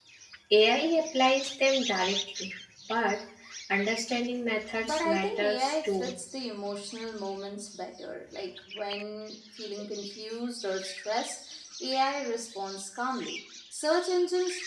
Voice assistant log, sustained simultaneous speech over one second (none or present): present